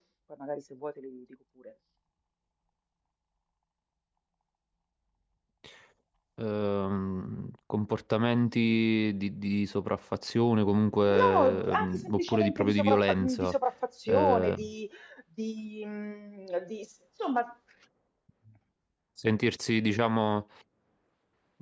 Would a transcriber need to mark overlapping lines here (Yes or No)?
Yes